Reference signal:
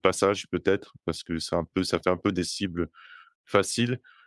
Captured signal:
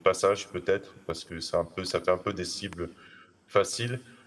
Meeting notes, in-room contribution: none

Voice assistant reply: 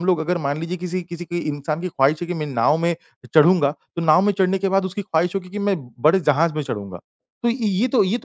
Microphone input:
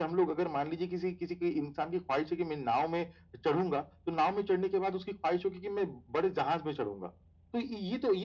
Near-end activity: none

